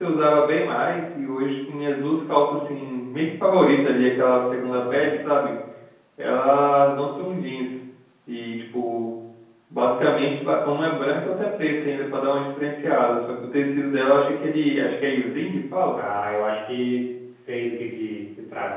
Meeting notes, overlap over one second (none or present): none